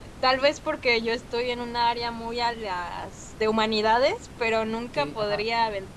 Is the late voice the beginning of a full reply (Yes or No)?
No